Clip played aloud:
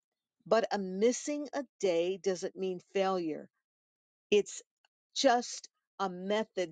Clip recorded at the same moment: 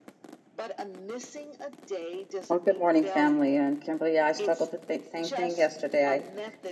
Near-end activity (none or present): present